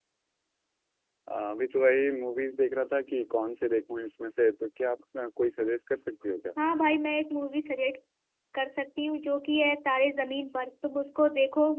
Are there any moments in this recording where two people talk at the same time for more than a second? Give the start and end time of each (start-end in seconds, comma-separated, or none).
none